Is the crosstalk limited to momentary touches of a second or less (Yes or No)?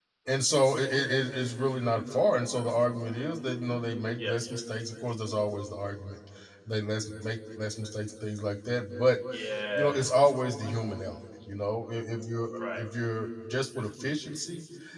Yes